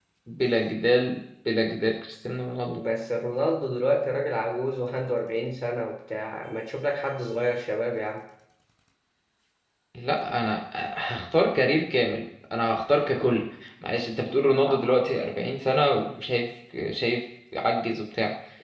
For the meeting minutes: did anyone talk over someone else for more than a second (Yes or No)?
No